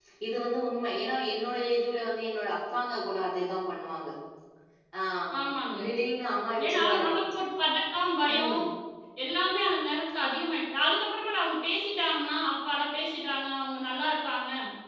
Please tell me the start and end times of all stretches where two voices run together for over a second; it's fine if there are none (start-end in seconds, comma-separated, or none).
none